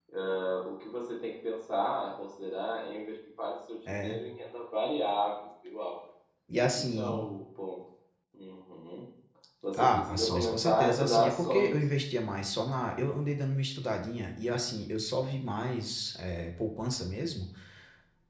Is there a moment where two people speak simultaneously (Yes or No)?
Yes